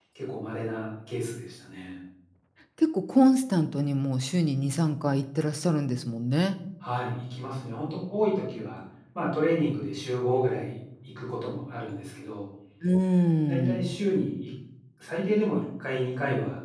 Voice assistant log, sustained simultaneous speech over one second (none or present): none